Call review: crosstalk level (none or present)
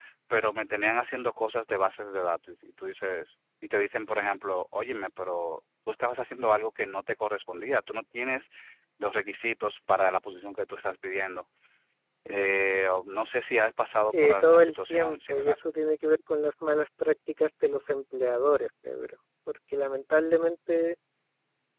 present